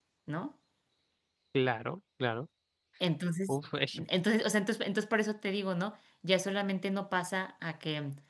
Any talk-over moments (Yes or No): No